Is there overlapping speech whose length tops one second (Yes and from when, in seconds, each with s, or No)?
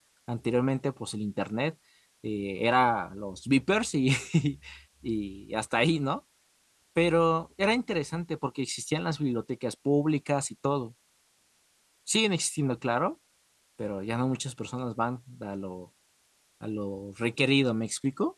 No